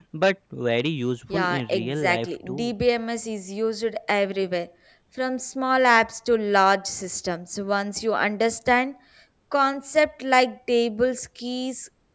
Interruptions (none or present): present